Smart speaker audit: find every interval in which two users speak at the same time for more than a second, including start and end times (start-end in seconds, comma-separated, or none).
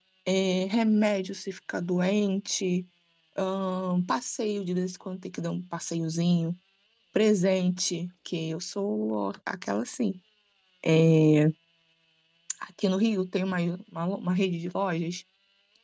none